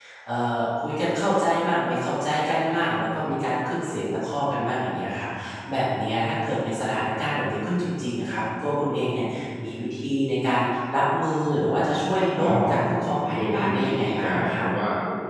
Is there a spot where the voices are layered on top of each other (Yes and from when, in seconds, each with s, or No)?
Yes, from 12.3 s